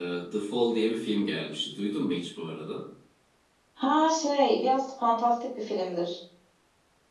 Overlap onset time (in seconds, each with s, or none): none